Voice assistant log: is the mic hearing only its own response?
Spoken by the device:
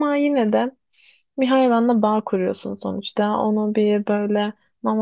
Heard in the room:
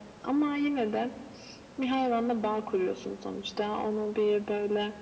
Yes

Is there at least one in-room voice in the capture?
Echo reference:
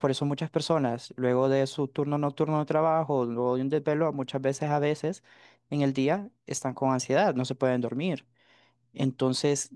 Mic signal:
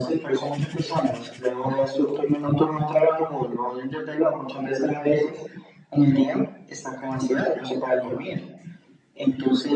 No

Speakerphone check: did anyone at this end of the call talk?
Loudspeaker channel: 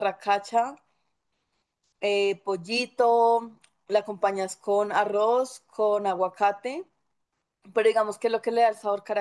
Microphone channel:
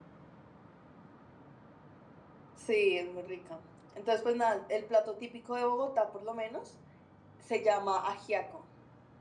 Yes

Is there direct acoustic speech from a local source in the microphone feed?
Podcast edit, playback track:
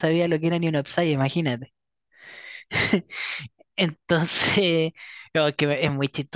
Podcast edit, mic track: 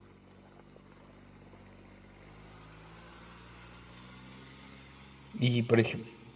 Yes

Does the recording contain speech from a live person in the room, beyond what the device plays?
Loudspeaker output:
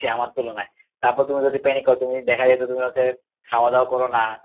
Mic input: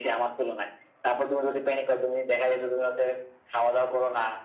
No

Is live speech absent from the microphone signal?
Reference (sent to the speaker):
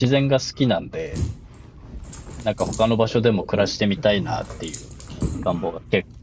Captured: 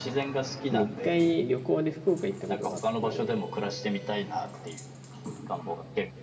No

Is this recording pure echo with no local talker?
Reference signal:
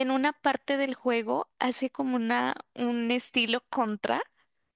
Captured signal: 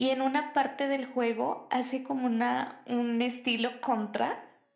Yes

